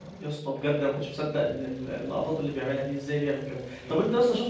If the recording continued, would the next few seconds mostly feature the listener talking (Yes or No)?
No